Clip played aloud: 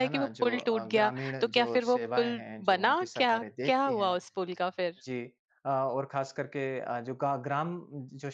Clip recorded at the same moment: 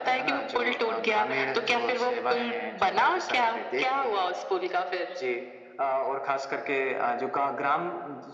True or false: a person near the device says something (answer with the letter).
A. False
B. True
A